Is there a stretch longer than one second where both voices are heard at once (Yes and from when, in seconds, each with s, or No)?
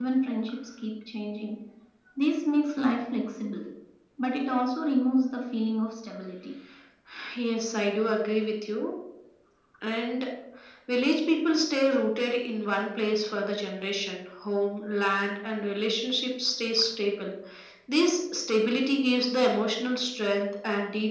No